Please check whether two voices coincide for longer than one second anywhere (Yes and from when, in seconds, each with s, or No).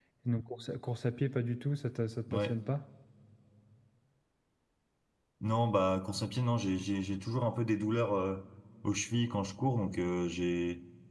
No